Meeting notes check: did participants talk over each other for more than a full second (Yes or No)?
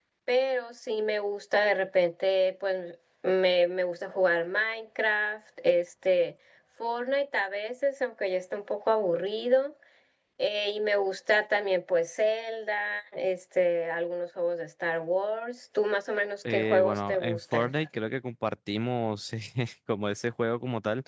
Yes